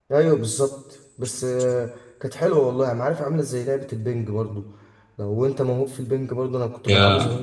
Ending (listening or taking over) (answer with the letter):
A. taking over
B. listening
B